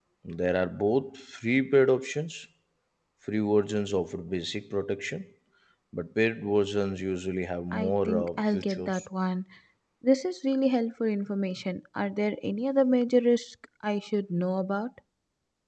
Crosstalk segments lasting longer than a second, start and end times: 7.7-9.0

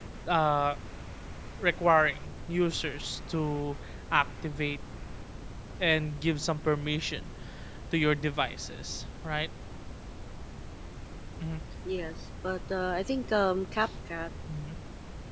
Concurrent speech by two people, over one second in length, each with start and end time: none

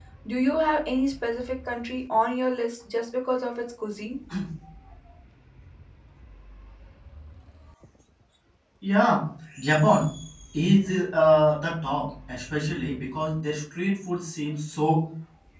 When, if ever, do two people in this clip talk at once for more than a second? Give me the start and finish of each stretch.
none

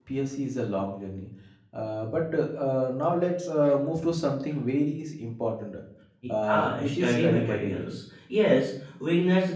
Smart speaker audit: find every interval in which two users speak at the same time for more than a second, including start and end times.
6.5-7.9

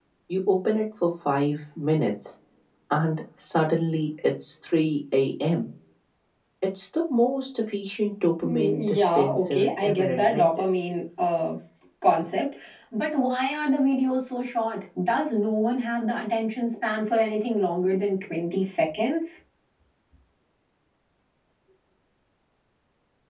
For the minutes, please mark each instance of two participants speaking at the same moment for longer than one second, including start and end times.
8.4-10.5

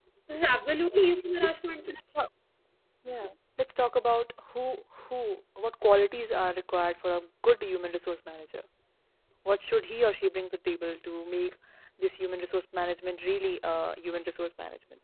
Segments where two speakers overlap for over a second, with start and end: none

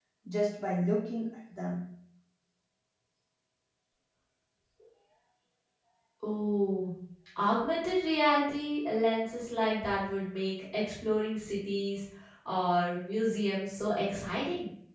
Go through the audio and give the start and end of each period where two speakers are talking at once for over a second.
none

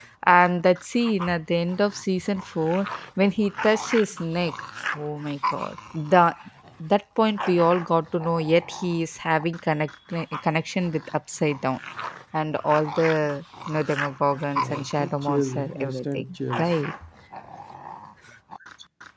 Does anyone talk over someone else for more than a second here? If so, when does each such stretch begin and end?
14.6-16.7

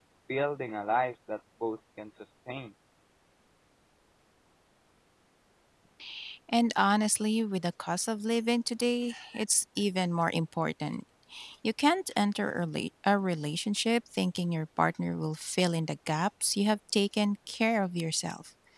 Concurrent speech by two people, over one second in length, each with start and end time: none

